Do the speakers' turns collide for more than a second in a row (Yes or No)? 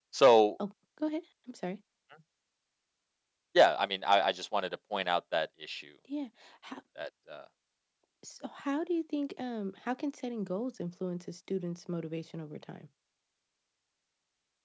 No